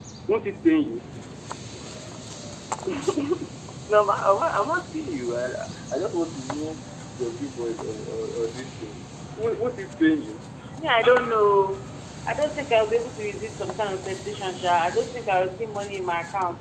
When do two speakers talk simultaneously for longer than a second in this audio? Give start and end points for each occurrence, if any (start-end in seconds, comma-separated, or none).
none